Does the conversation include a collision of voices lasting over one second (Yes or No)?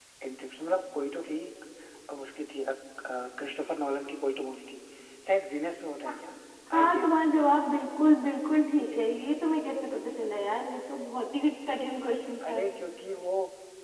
No